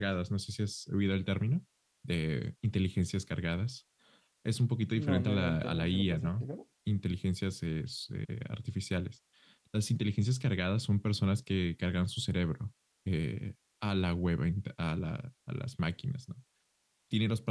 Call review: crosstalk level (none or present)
present